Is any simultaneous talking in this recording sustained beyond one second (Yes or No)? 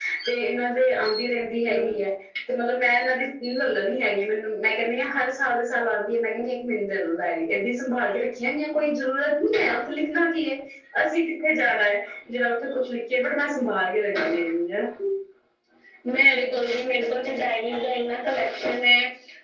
No